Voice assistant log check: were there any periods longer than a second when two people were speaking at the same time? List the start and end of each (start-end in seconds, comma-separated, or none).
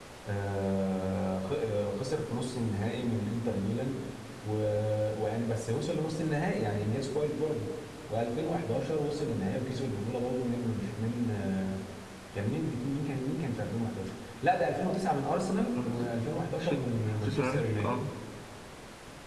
16.6-18.0